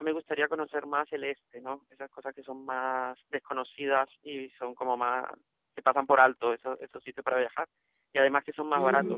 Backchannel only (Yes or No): Yes